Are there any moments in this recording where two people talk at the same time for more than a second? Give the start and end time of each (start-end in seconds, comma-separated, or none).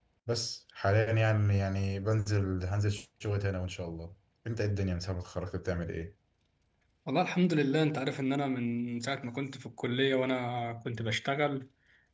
none